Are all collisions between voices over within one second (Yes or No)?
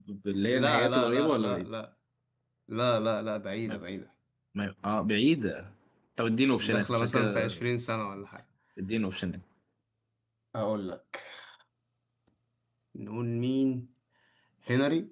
No